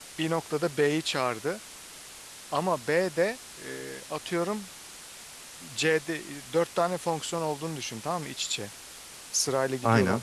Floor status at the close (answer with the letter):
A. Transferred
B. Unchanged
B